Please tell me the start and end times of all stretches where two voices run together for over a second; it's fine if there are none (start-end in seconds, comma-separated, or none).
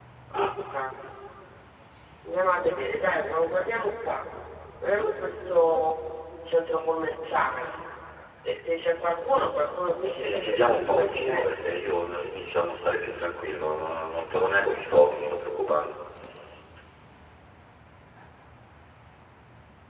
10.2-11.5